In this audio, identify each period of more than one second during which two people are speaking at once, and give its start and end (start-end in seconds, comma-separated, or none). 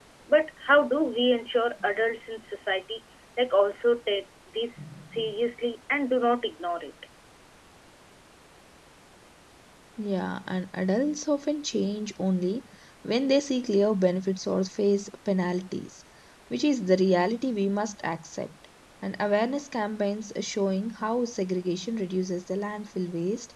none